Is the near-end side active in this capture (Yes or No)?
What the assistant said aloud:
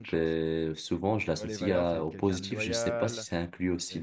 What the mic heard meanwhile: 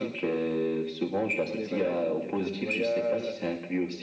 No